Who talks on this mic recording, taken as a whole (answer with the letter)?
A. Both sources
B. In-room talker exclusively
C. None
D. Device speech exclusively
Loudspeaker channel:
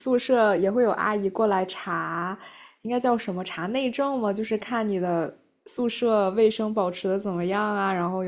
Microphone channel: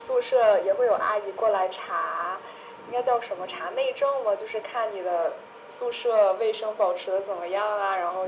D